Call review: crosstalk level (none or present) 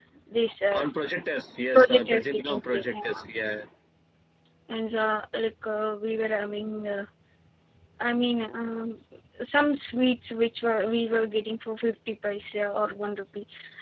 present